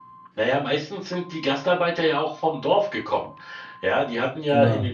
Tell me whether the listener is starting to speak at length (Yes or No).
No